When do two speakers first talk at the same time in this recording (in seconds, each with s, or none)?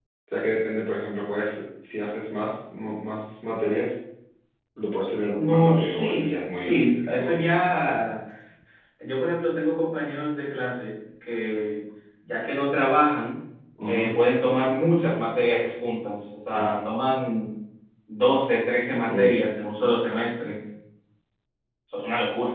5.3 s